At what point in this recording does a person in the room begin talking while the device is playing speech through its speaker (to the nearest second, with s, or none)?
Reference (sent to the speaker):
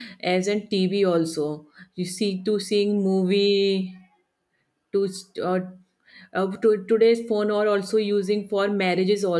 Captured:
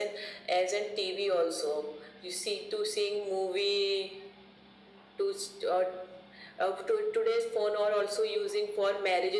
none